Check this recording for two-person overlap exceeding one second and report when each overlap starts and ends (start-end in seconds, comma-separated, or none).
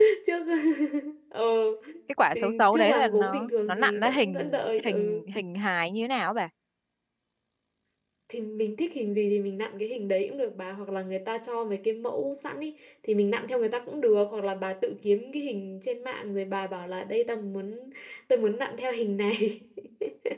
2.3-5.2